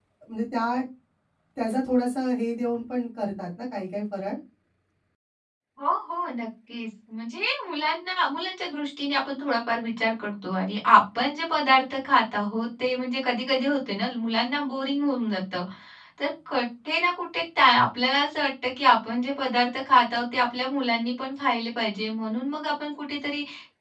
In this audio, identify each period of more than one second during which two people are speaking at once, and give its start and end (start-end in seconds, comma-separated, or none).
none